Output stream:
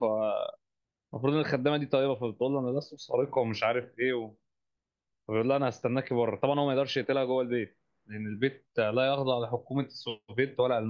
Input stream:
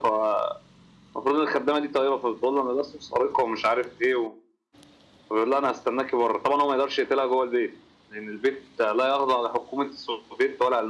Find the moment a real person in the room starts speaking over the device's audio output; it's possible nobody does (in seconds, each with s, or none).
none